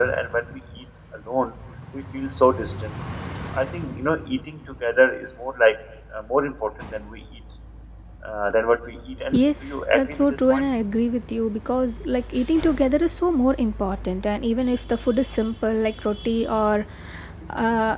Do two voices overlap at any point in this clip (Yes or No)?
Yes